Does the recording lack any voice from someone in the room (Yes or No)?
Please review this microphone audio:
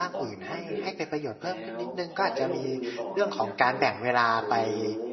No